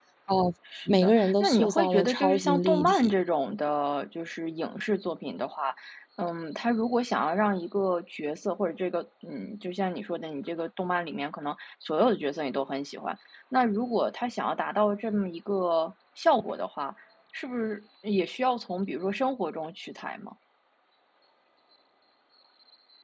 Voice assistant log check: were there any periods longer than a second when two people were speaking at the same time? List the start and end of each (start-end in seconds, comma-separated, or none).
0.9-3.1